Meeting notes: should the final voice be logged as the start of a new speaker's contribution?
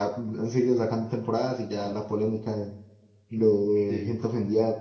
No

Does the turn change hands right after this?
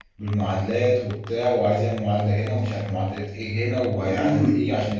Yes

